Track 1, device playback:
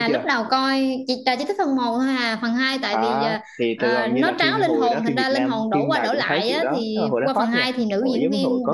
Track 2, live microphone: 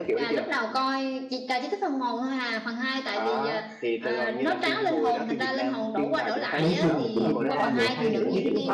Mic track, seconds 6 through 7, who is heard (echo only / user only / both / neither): both